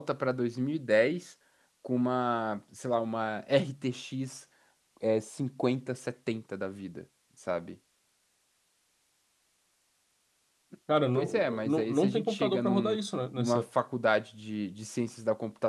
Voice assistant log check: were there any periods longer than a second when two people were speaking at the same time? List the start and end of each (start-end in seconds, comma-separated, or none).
11.1-12.9